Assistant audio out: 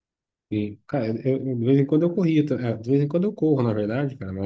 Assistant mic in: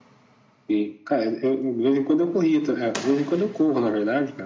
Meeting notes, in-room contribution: none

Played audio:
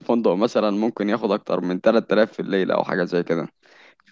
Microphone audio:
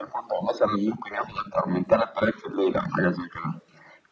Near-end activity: none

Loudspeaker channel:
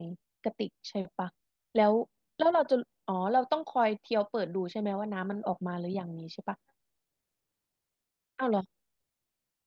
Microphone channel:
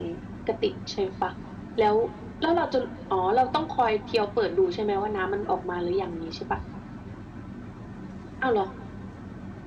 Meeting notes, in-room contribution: none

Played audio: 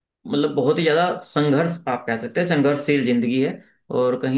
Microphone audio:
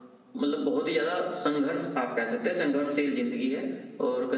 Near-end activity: none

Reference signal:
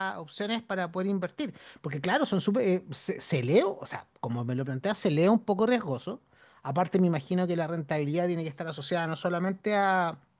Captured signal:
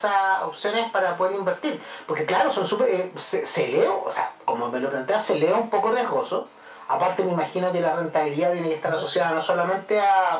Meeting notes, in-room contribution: present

